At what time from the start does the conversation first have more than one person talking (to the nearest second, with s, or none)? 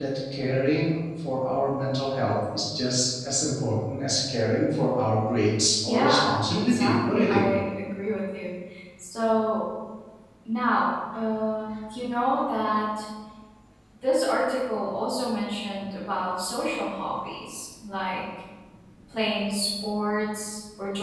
6 s